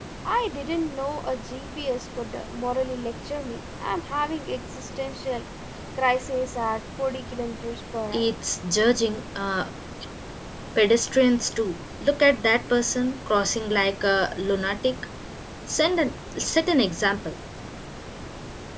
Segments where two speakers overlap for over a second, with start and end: none

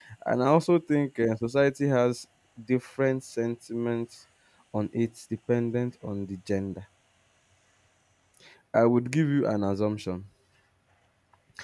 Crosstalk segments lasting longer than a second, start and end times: none

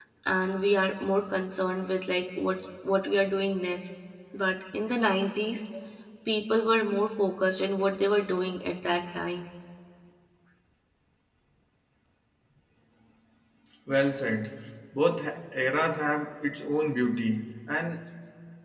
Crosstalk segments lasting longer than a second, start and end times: none

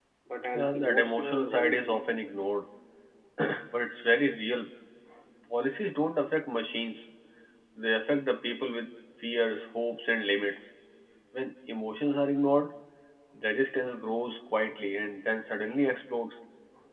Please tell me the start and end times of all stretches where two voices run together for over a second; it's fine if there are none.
0.5-1.9

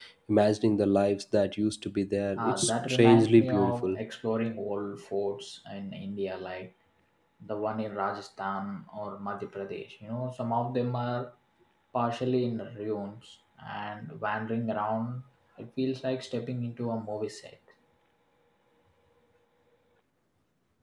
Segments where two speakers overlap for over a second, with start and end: 2.4-4.0

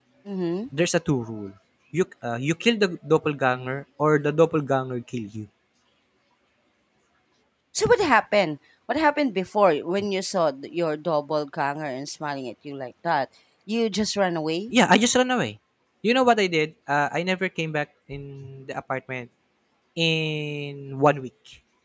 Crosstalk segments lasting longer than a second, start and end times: none

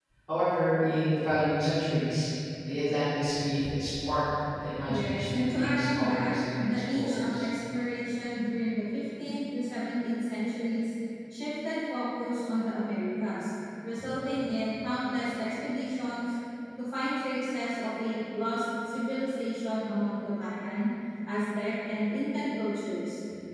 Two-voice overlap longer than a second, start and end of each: 5.0-7.5

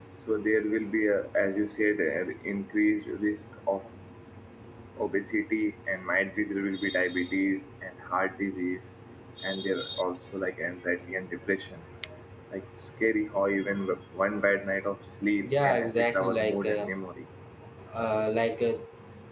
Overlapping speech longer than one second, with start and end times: 15.5-16.9

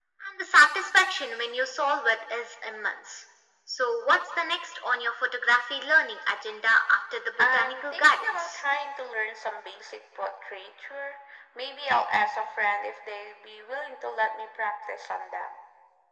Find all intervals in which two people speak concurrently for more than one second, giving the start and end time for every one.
7.4-8.6

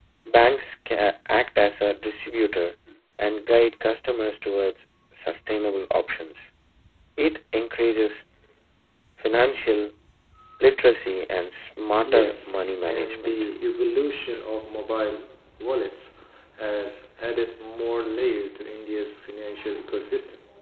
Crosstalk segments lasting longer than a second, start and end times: 12.1-13.4

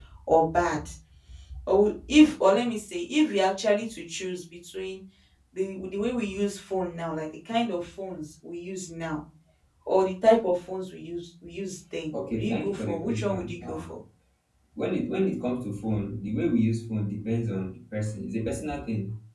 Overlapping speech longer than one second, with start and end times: 12.3-13.9

